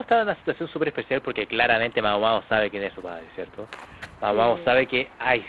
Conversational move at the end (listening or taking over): listening